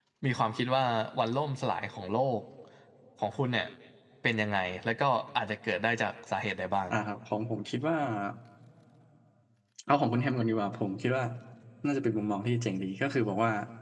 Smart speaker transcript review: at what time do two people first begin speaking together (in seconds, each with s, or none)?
none